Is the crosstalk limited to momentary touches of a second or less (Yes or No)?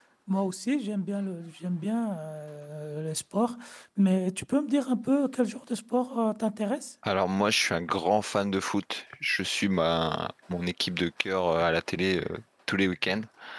Yes